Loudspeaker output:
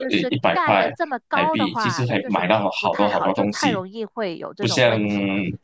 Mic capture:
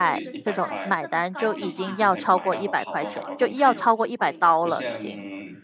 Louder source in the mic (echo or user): user